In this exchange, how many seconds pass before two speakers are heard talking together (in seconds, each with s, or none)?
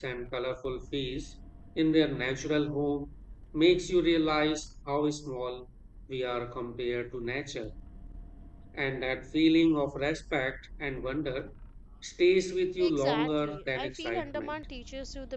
12.8 s